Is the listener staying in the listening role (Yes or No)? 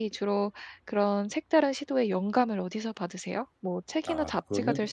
Yes